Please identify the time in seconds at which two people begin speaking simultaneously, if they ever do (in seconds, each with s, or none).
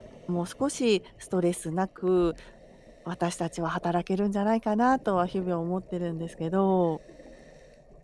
none